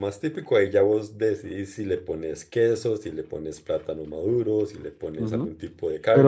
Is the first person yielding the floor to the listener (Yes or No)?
Yes